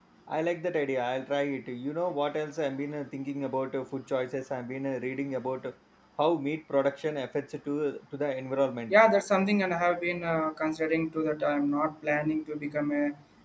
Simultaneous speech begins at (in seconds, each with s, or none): none